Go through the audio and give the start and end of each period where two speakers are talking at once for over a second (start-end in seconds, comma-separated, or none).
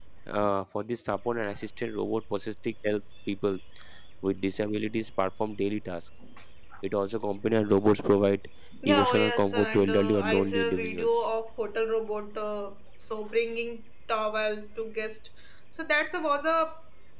8.8-11.2